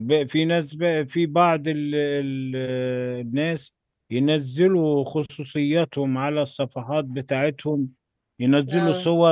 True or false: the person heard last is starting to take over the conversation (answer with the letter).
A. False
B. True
A